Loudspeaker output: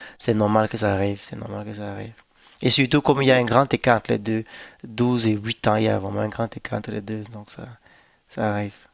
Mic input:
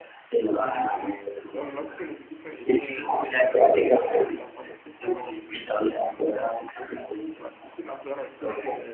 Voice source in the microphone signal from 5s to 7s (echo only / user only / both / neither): both